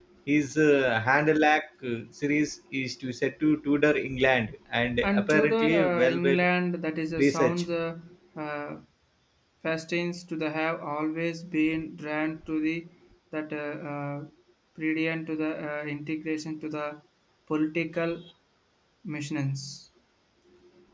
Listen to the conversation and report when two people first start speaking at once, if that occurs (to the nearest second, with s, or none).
5 s